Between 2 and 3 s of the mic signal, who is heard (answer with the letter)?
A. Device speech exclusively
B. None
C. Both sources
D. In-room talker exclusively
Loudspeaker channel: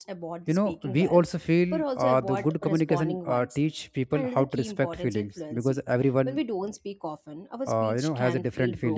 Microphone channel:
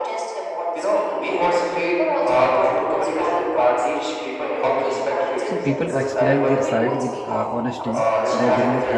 A